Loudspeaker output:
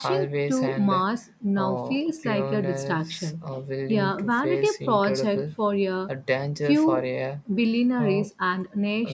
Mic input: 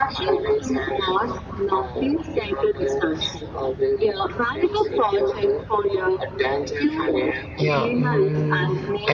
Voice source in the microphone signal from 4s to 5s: echo only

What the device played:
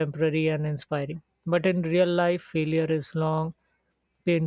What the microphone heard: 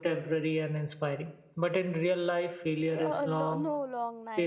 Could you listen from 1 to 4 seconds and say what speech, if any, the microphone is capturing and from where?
both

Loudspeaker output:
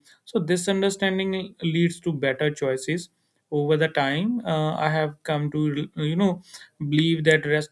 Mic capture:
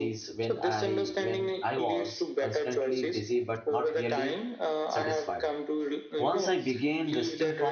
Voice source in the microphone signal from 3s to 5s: both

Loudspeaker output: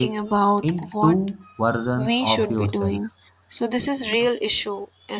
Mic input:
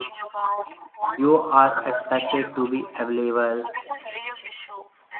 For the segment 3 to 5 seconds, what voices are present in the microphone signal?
both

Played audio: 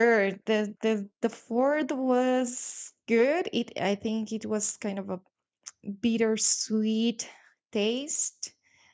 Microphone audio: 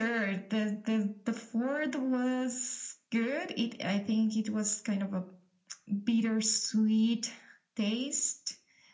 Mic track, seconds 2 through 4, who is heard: echo only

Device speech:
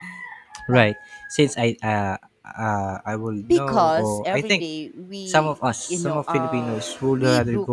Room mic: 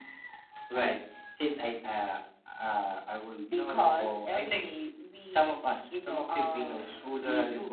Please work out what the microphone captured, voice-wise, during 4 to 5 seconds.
echo only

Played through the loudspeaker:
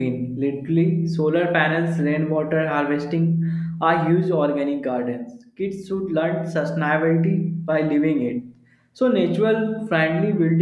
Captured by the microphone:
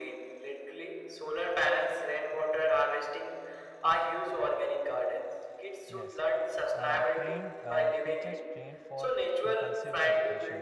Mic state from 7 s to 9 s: both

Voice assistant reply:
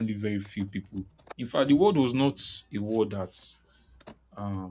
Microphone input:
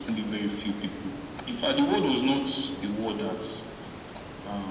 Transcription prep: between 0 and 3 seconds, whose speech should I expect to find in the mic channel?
echo only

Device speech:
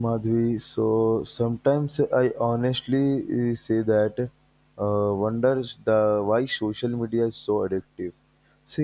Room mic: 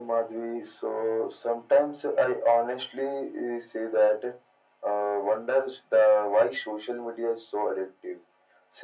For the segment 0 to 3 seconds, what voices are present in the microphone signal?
echo only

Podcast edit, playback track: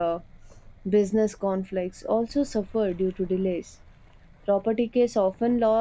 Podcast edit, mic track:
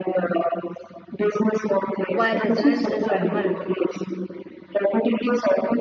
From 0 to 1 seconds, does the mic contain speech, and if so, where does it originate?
echo only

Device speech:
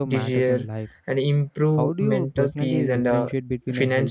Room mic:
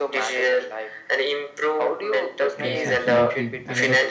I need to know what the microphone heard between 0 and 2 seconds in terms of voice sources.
echo only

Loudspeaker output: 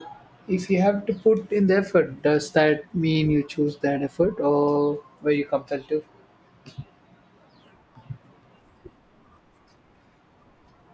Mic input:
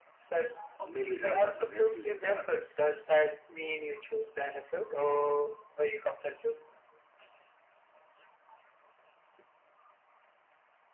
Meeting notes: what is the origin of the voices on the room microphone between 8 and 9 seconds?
neither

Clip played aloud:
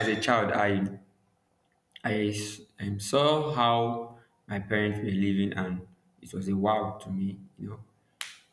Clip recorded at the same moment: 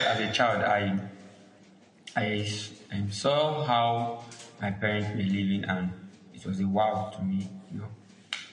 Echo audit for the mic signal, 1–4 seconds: echo only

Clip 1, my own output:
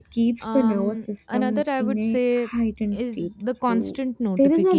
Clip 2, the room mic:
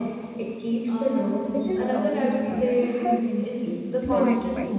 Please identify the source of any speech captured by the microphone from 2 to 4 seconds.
both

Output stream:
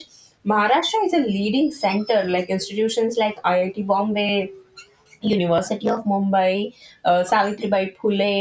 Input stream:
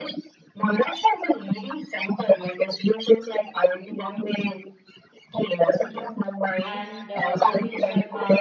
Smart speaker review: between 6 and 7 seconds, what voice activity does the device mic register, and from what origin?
both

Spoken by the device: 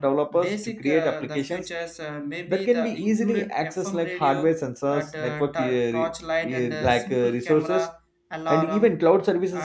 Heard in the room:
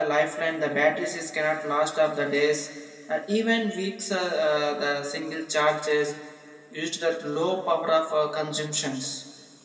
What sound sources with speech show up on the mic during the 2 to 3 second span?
user only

